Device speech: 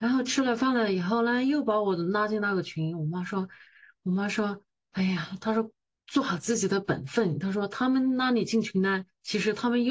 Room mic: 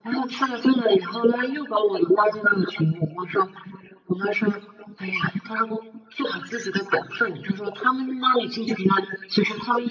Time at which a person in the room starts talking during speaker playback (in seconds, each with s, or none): none